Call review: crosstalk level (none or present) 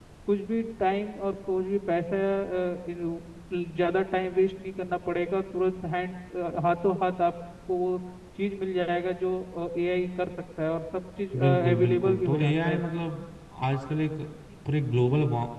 present